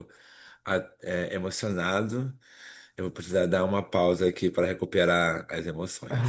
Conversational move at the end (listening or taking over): taking over